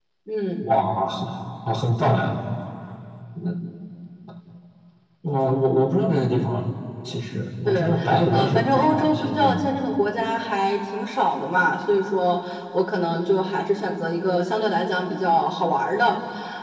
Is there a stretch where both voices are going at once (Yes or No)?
Yes